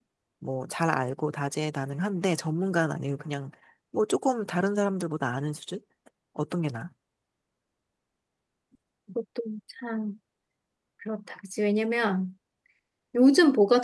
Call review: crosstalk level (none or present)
none